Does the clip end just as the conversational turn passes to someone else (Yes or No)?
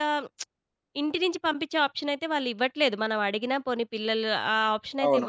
Yes